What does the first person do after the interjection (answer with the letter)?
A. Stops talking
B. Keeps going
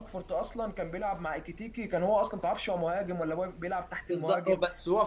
A